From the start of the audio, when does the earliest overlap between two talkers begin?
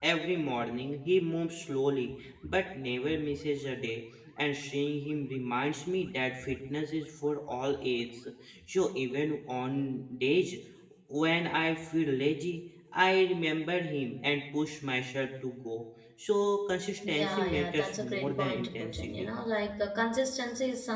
17.0 s

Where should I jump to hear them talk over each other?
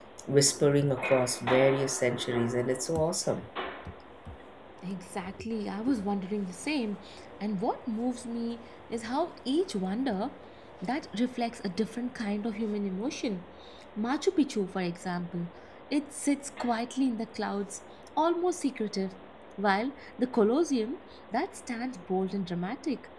none

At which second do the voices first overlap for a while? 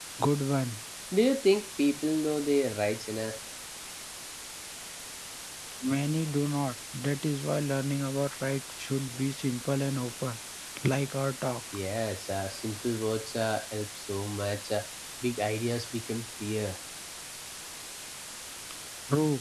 none

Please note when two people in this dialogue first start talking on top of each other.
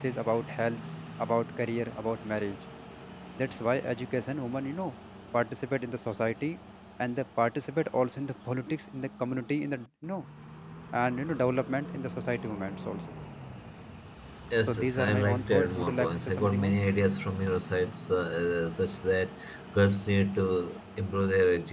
14.7 s

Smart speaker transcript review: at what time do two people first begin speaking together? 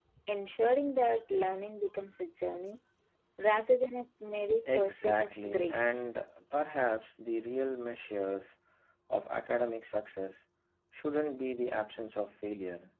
4.6 s

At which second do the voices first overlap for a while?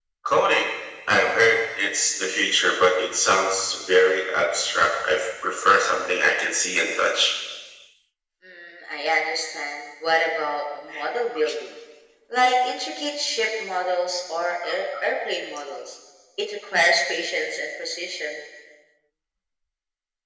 none

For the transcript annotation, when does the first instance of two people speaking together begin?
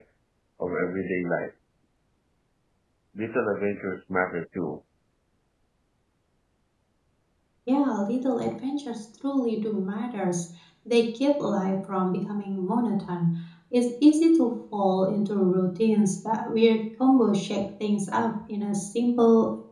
none

